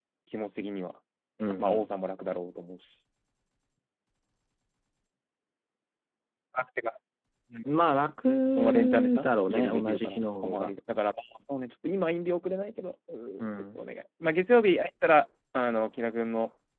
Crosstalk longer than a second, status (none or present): present